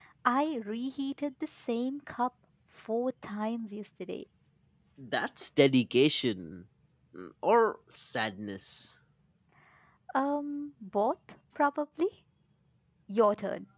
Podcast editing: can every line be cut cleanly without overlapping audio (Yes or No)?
Yes